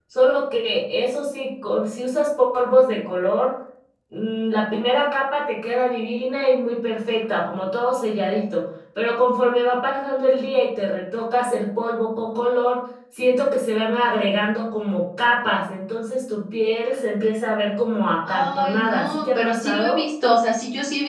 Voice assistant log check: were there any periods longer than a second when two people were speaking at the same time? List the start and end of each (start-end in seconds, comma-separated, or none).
18.3-20.0